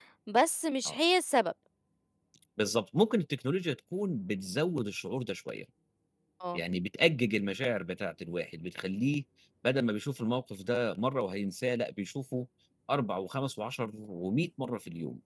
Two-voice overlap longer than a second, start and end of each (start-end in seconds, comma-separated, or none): none